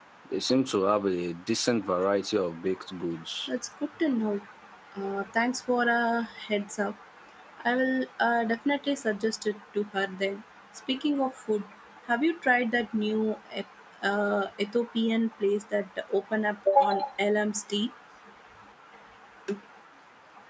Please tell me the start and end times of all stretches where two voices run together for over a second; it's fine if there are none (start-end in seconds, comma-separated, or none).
none